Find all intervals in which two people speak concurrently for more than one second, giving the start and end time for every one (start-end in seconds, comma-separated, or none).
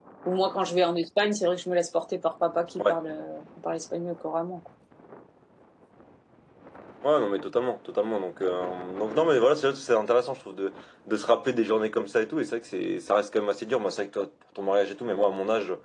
none